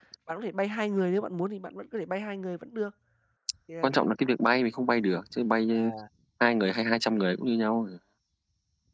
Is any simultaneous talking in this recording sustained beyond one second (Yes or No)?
No